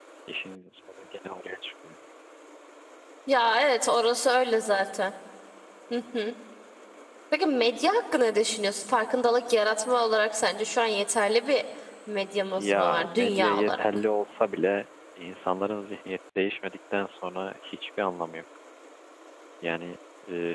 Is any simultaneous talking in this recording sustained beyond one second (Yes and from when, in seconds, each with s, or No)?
Yes, from 12.6 s